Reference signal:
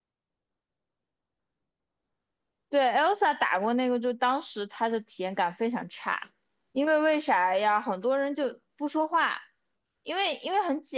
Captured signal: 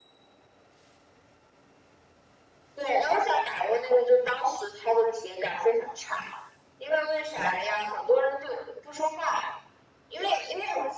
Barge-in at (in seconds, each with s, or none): none